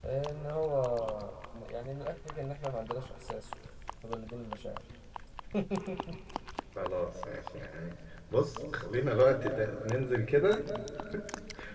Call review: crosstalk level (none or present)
none